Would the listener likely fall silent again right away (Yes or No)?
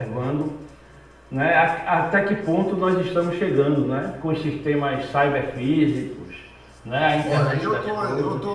No